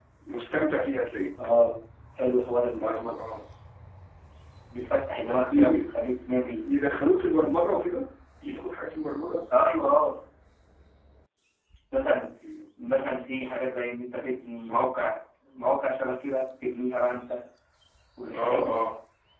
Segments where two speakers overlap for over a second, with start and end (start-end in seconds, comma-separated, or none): none